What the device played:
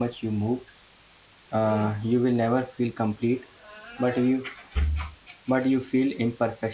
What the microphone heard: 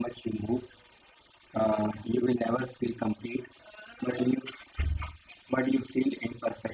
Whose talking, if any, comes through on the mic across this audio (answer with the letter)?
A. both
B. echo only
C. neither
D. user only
B